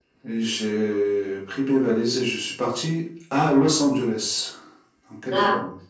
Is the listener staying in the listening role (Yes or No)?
No